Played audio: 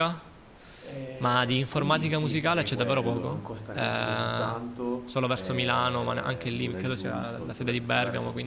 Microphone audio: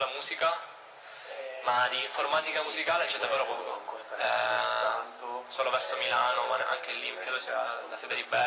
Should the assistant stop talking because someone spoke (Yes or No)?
No